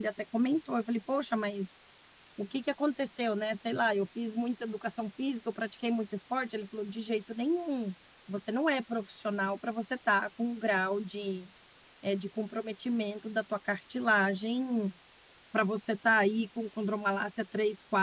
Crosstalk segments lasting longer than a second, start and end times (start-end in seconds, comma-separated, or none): none